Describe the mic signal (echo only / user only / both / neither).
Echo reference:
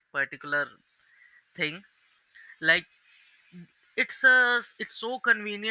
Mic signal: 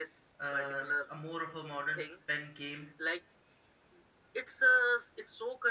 both